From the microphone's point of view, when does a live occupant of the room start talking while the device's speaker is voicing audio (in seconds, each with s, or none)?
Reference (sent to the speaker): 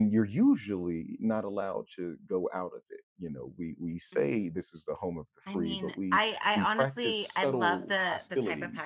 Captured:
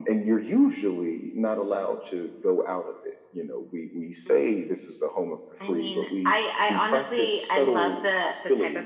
none